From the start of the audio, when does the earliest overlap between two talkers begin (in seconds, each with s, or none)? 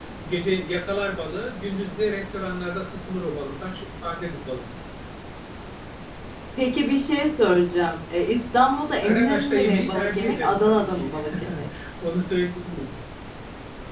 9.0 s